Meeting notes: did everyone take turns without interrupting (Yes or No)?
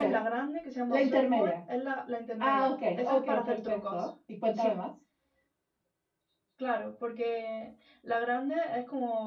No